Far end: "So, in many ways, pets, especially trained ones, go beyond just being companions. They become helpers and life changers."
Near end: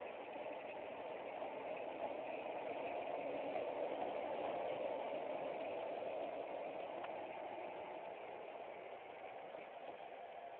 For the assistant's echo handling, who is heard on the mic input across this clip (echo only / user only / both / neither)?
neither